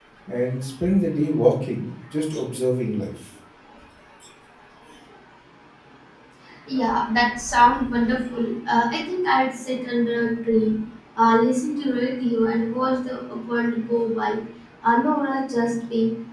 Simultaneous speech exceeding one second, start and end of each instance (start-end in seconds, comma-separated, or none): none